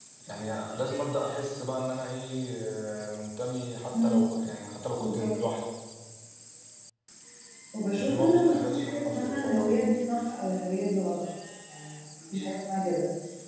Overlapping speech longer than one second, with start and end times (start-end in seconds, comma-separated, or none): 8.0-9.8